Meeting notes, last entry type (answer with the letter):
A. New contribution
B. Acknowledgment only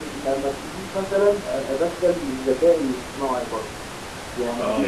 A